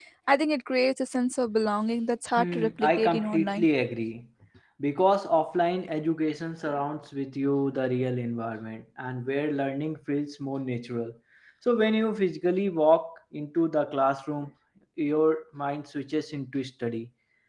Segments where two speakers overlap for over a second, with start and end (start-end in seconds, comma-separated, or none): 2.4-3.7